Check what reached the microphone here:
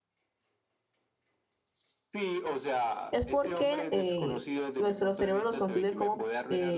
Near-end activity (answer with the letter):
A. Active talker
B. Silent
A